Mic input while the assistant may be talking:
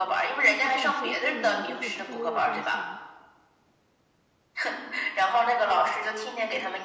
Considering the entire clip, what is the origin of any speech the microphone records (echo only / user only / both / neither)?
both